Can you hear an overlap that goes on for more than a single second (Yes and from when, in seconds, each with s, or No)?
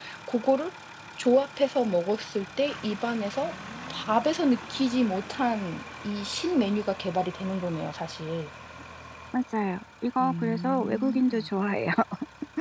Yes, from 10.2 s